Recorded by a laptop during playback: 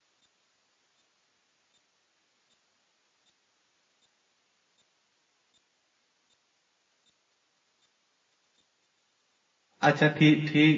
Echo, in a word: none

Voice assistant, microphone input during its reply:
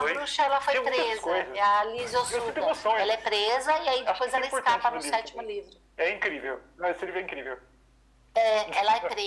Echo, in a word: present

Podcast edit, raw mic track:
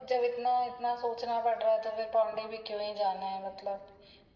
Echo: present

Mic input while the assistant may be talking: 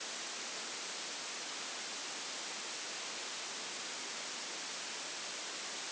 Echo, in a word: none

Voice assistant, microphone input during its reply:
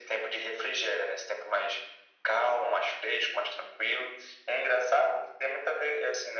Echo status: present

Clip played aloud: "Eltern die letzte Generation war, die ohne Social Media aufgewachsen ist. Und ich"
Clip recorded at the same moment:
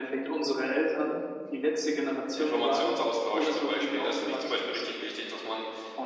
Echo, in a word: present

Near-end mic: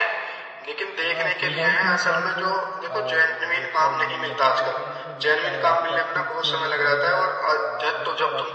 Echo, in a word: present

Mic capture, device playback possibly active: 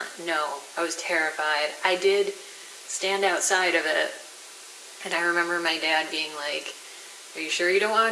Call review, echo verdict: present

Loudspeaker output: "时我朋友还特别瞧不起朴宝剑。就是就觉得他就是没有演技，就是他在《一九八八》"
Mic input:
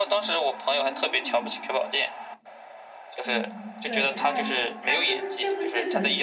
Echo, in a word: present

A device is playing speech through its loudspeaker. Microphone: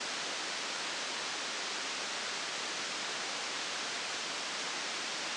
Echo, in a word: none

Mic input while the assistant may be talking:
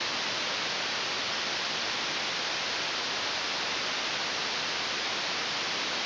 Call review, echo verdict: none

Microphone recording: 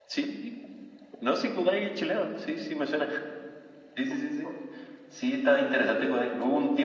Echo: present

